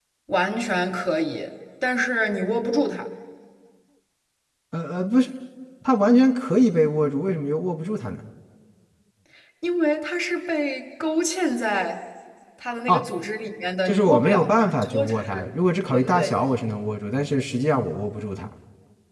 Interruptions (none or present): present